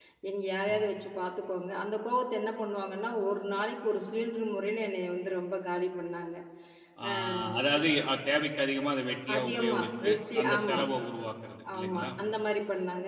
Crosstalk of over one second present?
Yes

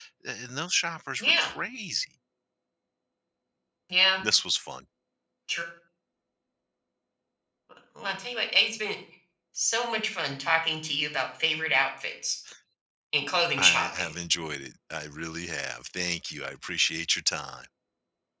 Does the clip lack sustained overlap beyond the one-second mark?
Yes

